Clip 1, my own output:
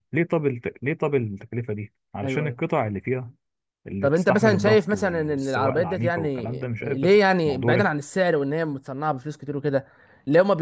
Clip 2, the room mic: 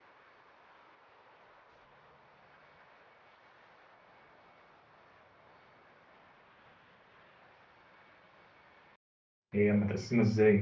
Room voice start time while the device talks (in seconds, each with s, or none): 9.5 s